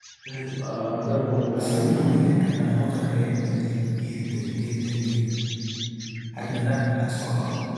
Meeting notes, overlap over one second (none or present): present